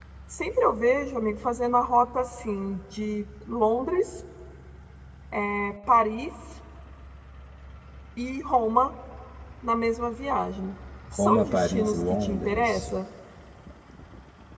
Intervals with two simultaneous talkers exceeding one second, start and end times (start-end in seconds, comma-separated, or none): 11.2-12.8